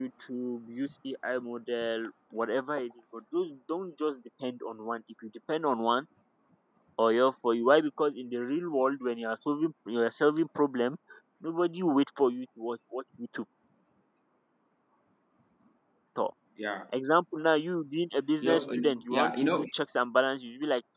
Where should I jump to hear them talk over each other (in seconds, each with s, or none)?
18.4 s